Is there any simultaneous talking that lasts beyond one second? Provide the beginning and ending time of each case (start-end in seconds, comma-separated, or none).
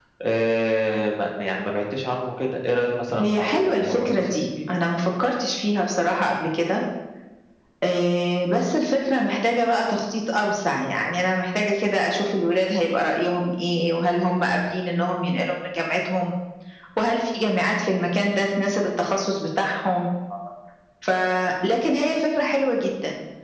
3.2-4.5